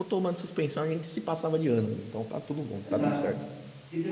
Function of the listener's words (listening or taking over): taking over